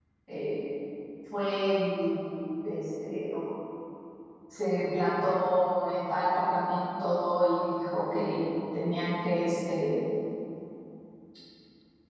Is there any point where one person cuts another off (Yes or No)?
No